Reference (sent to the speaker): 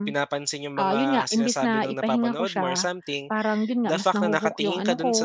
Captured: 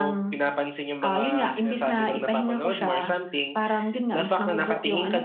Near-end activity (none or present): none